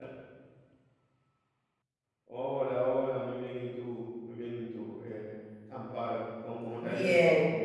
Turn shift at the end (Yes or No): Yes